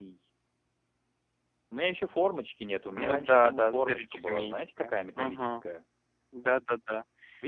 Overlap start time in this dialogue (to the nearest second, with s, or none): 3 s